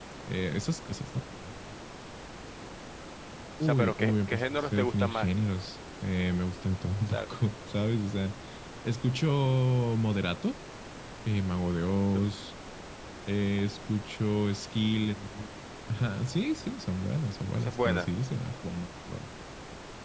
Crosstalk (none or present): present